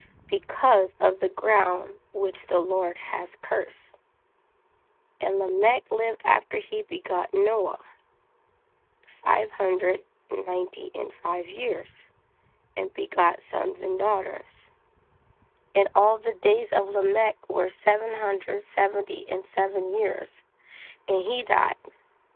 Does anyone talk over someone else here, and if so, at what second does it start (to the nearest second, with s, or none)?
none